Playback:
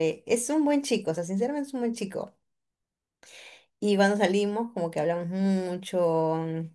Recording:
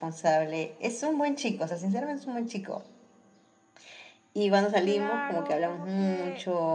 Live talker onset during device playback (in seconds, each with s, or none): 4.8 s